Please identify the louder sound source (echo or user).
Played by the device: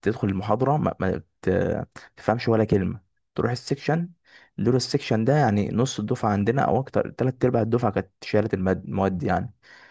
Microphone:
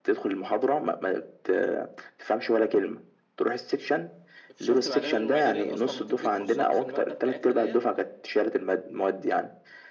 echo